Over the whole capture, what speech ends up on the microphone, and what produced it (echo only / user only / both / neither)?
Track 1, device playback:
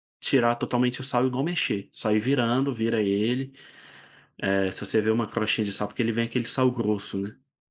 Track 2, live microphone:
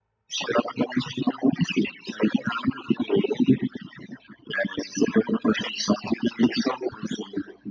echo only